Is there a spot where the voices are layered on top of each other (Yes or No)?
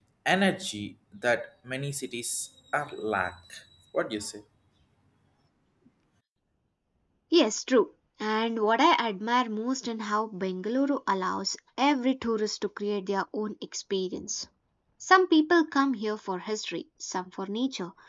No